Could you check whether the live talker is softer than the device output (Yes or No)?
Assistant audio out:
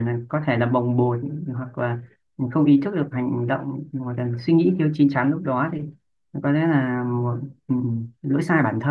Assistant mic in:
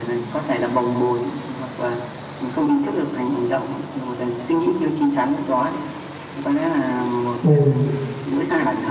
No